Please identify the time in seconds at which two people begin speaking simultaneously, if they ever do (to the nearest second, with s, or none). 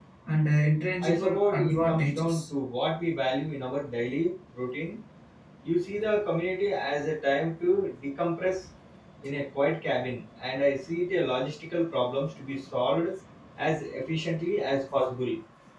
1 s